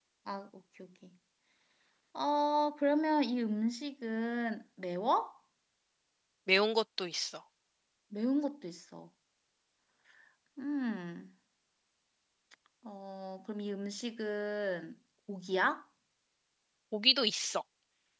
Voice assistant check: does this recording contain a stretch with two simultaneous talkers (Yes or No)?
No